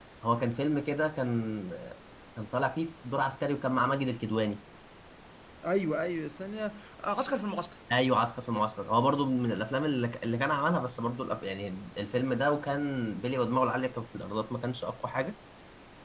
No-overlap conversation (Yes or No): Yes